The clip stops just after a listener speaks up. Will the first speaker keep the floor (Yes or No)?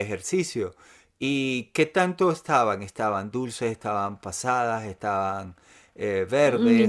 No